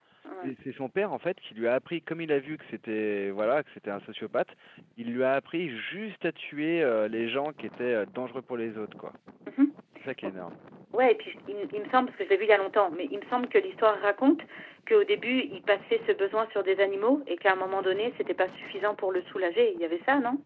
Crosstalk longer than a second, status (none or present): none